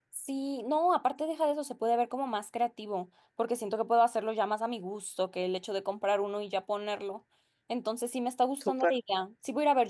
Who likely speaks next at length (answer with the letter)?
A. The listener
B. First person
B